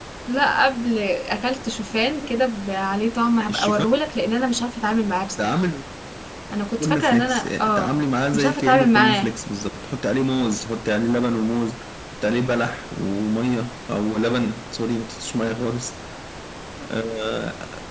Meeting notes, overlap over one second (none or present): present